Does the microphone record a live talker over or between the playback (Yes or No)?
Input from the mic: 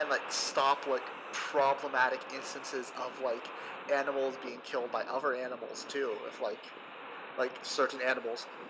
No